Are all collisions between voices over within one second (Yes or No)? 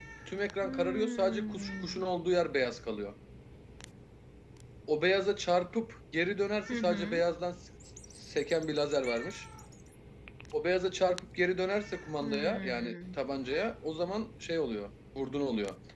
No